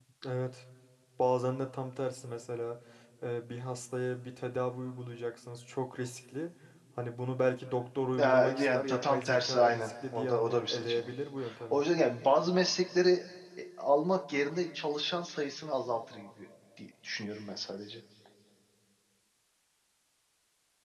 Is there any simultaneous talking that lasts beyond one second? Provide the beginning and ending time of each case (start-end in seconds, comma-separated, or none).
8.2-11.1